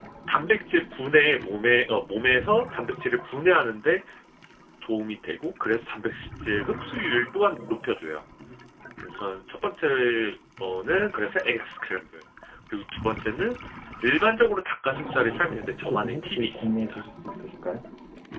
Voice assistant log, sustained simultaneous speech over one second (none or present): present